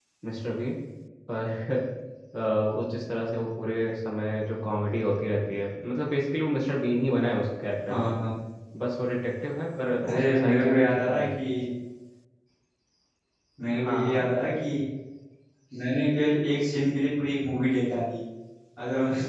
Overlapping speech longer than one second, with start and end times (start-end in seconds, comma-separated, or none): 10.1-11.5